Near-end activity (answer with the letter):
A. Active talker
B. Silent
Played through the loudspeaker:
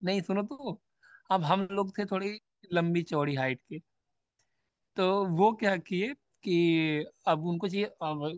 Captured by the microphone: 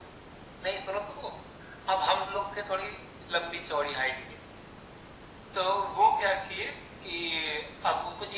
B